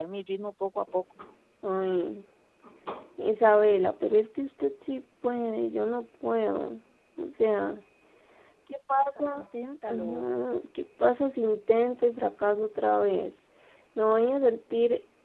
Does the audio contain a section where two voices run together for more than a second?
No

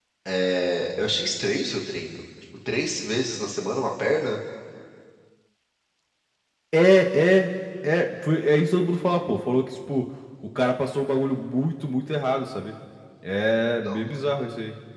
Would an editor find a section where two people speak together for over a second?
No

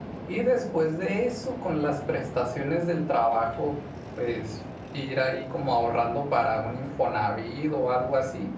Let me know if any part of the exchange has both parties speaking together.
No

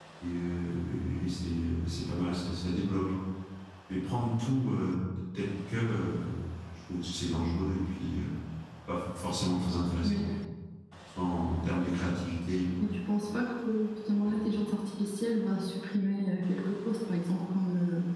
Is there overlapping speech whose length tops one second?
No

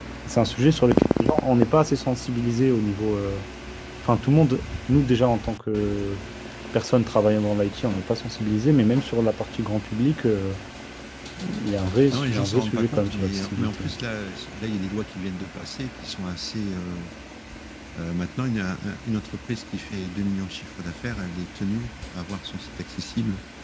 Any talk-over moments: Yes, from 12.1 s

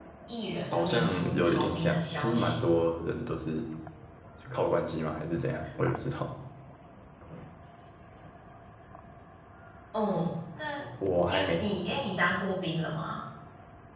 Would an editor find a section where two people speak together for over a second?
Yes, from 0.7 s

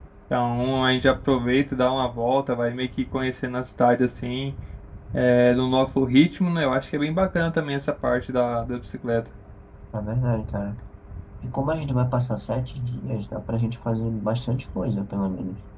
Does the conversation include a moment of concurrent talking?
No

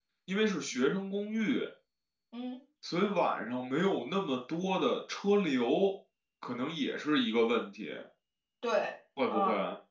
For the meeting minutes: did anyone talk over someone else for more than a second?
No

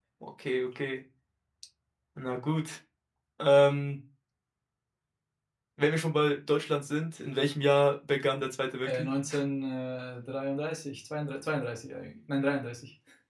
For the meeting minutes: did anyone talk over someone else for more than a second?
No

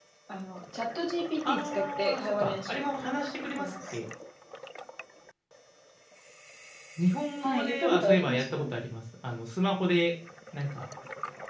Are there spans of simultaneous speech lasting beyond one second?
Yes, from 1.4 s

